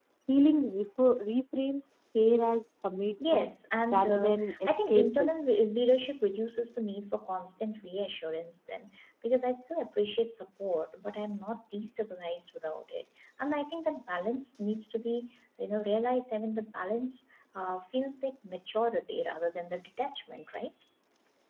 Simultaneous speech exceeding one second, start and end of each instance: 3.9-5.3

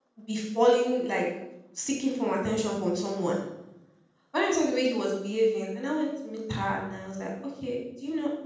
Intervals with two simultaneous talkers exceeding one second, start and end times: none

